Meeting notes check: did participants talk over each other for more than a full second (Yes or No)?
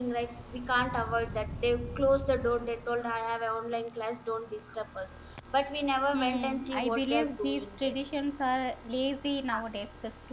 Yes